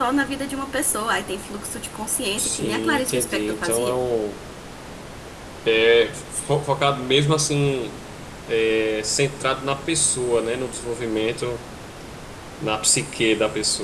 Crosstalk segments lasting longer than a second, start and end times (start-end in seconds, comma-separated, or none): 2.4-4.0